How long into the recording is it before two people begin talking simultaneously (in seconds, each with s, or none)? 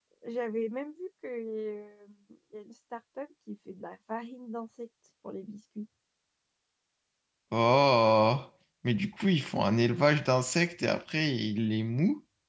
none